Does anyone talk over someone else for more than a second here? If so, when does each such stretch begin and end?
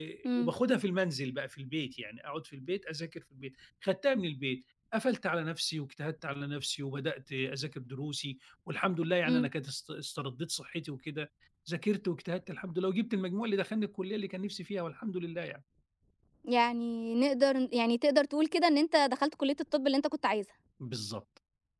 none

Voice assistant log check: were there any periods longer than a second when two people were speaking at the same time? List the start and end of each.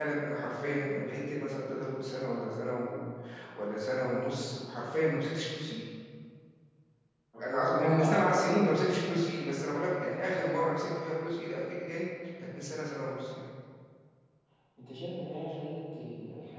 7.5-9.2

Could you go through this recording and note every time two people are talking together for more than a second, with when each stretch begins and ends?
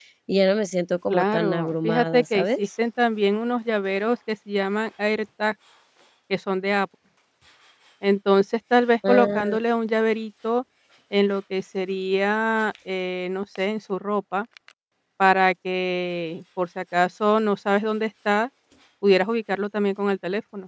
1.1-2.7

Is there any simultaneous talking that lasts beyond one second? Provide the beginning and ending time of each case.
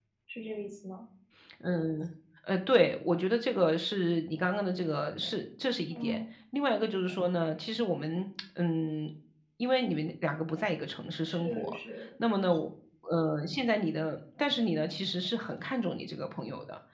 none

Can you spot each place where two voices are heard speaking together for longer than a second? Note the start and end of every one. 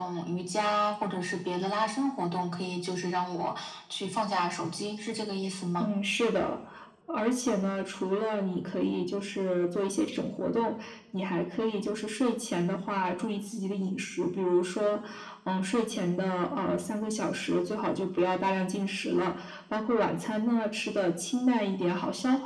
none

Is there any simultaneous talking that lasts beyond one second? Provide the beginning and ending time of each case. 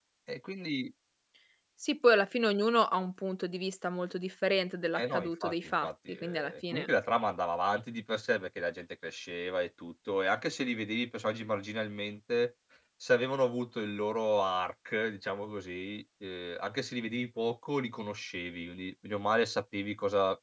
5.0-6.9

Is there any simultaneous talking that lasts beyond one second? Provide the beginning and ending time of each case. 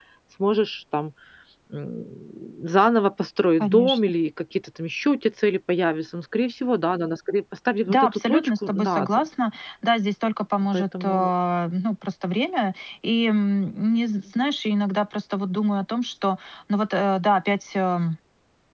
7.9-9.2

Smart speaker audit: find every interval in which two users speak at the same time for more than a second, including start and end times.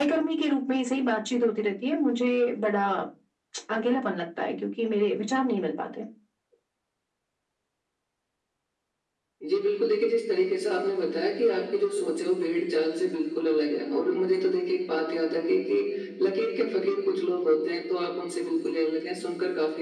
none

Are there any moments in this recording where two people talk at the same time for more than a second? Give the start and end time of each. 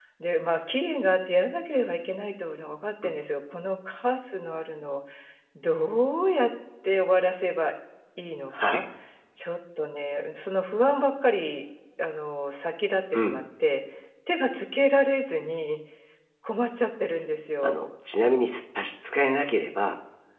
none

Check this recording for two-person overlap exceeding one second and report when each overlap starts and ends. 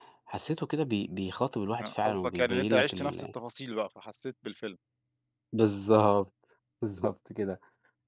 1.8-3.3

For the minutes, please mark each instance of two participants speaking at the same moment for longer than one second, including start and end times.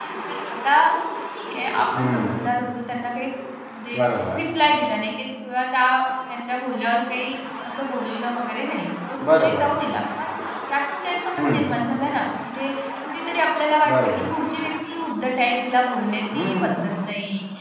none

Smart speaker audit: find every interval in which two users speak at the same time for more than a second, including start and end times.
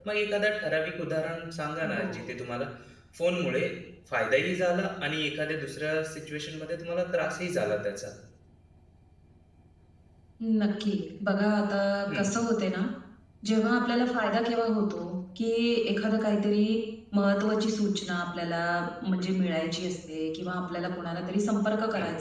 none

